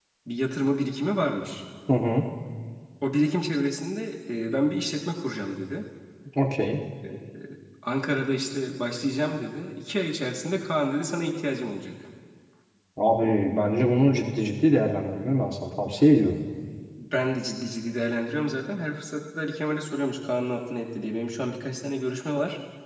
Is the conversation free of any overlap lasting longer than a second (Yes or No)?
Yes